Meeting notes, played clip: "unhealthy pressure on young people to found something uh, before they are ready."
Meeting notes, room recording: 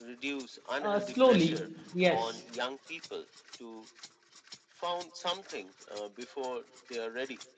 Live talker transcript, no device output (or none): Uh, slowly, yes,